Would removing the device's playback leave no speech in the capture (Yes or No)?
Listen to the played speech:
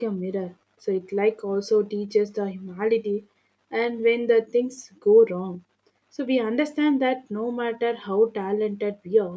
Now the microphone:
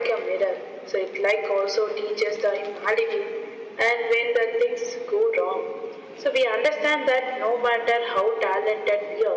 Yes